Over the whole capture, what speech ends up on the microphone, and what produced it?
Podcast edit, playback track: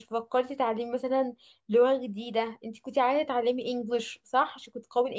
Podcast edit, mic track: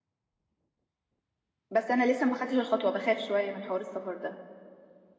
user only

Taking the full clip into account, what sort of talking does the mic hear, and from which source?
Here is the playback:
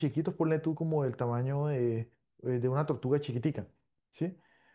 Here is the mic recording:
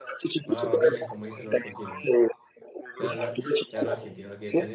both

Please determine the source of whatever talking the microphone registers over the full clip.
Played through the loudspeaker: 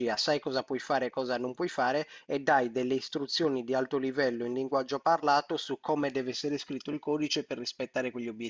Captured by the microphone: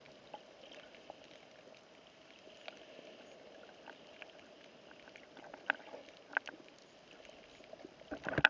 neither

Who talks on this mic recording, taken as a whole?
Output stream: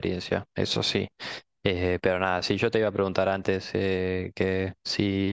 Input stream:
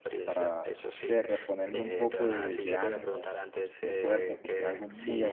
both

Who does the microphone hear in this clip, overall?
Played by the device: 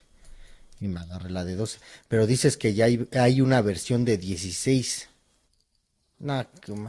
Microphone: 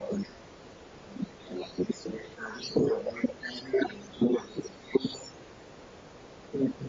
echo only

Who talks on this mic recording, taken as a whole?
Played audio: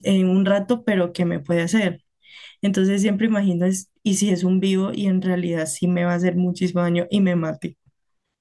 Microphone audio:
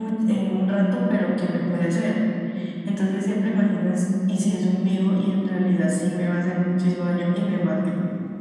echo only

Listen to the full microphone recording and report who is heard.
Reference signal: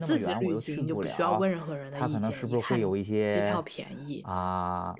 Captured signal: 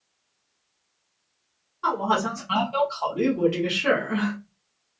user only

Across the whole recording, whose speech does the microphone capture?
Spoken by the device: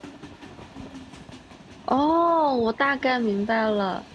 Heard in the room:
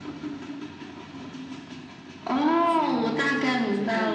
both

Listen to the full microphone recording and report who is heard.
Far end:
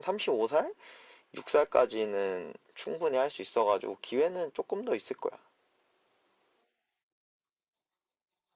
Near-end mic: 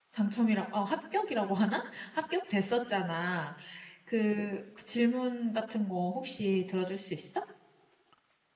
user only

